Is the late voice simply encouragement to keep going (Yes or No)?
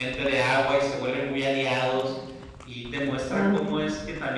Yes